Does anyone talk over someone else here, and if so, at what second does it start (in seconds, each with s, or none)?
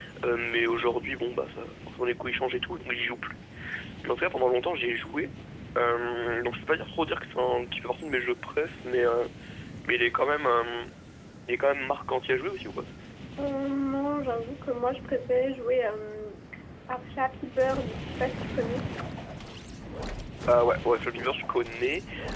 none